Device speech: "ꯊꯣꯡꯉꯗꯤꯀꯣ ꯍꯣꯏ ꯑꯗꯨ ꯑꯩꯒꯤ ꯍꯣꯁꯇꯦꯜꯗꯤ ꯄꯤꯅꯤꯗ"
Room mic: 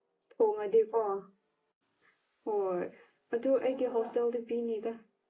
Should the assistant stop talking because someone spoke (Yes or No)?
Yes